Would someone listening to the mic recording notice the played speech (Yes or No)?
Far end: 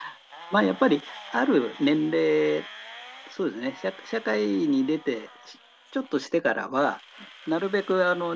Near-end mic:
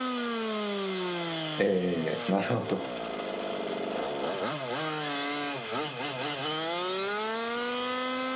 No